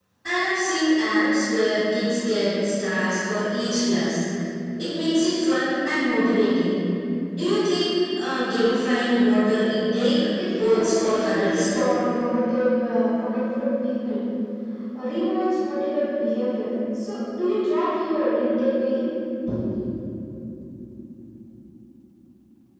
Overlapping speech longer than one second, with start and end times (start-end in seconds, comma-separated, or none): 10.5-11.9